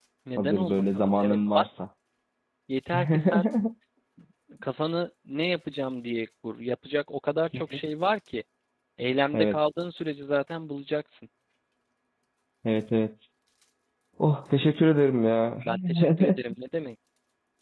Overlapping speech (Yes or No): Yes